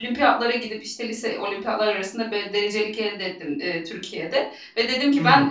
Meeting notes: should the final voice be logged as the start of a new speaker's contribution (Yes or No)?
No